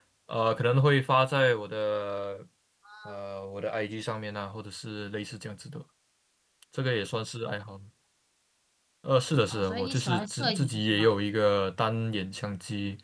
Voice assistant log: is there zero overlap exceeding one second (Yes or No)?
No